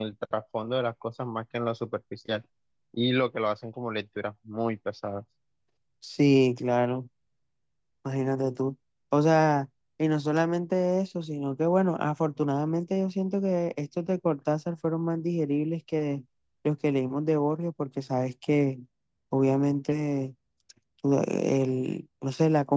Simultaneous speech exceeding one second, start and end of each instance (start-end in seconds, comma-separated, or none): none